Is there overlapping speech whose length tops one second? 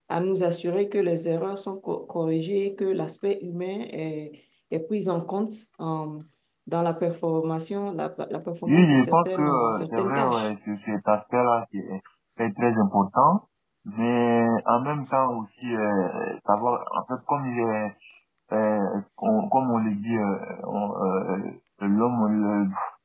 Yes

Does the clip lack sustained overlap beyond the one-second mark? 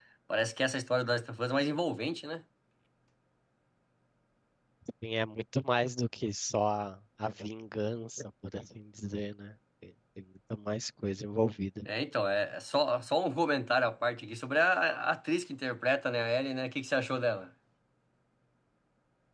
Yes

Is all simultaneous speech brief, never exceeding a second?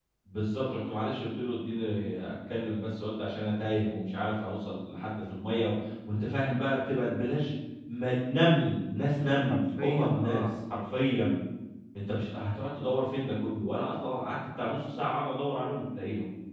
No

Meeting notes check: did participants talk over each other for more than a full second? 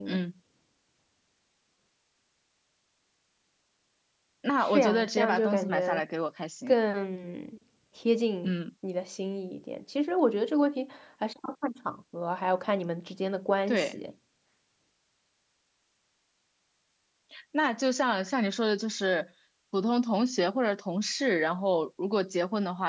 Yes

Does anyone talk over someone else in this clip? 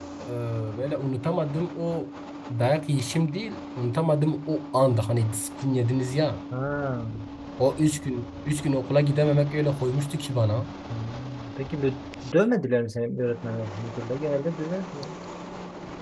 No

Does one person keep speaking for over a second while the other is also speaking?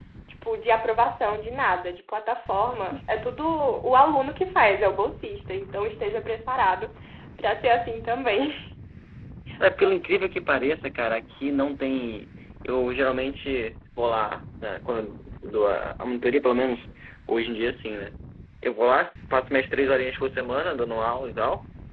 No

